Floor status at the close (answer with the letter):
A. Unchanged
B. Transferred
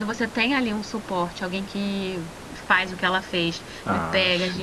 A